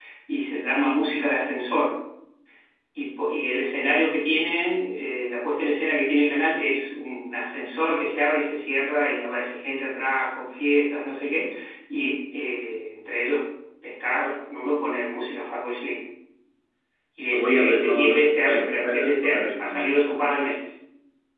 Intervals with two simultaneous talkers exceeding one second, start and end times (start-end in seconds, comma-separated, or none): 17.3-20.0